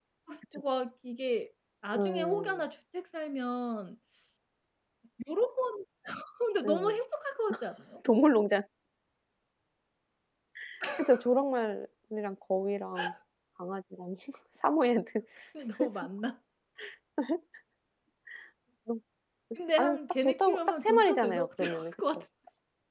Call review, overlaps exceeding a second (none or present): present